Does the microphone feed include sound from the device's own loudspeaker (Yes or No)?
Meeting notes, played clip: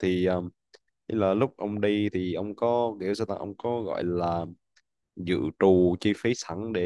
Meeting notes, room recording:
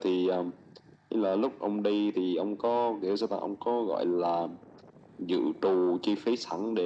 Yes